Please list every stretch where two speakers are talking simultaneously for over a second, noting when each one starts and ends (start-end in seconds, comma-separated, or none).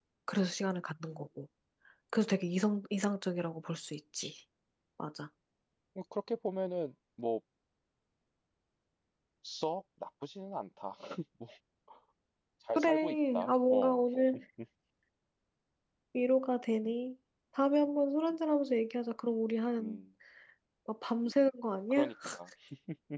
12.8-14.0